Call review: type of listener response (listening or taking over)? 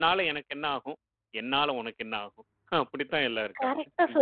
taking over